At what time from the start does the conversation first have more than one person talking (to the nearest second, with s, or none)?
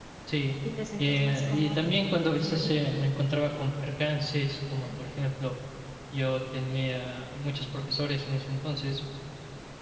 1 s